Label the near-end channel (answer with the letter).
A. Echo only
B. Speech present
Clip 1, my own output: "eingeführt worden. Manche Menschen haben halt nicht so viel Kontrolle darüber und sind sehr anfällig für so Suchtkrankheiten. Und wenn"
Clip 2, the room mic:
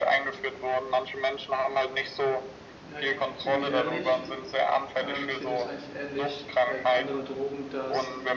B